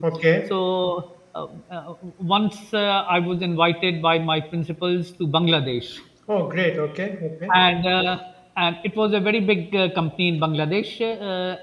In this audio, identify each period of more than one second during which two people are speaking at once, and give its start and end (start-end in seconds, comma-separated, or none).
none